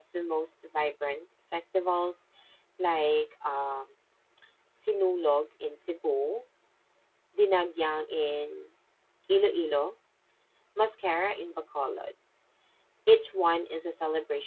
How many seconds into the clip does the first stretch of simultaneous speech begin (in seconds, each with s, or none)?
none